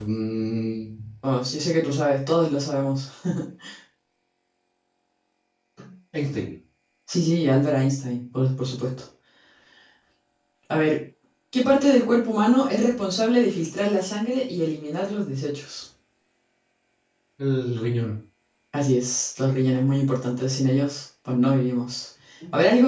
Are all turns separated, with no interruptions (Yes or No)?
Yes